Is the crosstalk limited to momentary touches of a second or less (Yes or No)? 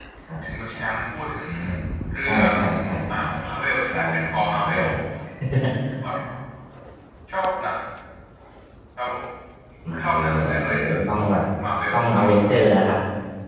No